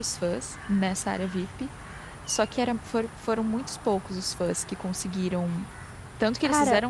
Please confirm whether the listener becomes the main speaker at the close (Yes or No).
No